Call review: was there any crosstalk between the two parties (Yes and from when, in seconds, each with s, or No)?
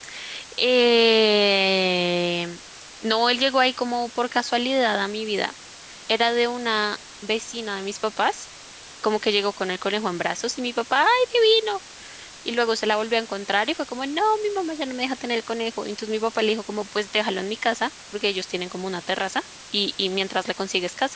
No